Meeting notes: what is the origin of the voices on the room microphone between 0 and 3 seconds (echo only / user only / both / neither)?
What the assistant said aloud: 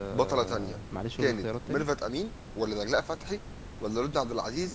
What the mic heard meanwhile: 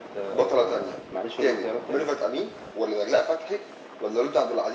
echo only